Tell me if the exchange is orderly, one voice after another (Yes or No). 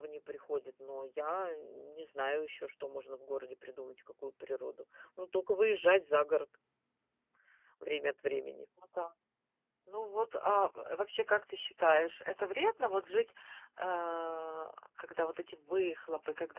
Yes